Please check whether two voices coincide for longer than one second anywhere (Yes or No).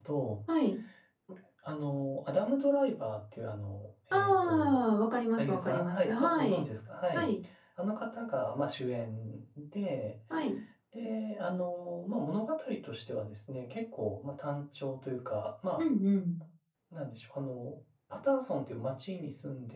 Yes